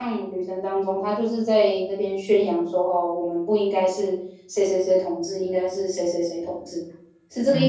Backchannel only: No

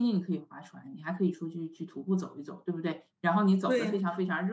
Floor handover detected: No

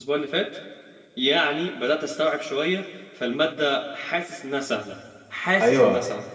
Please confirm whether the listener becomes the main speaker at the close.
Yes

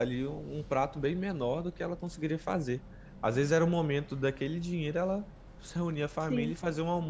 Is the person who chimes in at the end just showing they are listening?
Yes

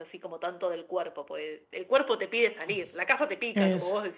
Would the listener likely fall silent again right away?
No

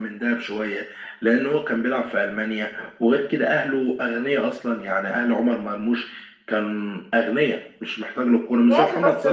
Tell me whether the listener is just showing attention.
No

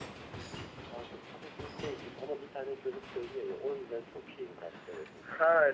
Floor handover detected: Yes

